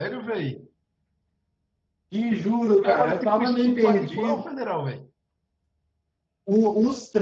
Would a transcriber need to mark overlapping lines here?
Yes, from 2.8 s

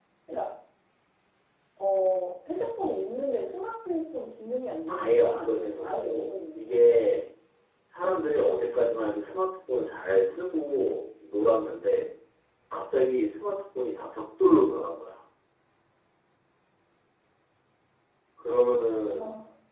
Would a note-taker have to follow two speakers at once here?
Yes, from 4.9 s

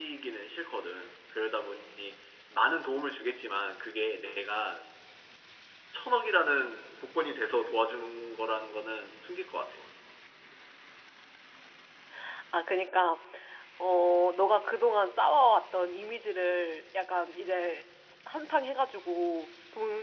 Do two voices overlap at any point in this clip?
No

